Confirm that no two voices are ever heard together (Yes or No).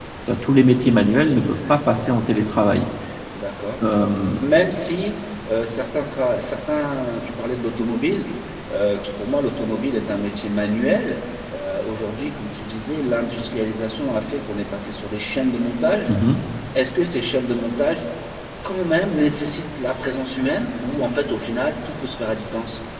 Yes